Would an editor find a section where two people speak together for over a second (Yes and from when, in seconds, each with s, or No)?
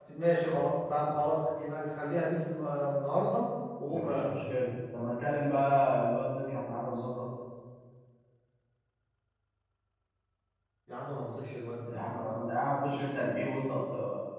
No